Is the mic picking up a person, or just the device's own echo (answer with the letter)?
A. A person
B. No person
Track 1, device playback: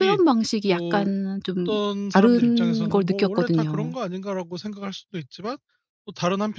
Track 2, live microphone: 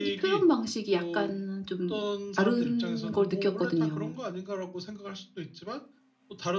B